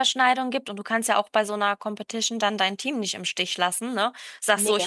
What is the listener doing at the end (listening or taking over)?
listening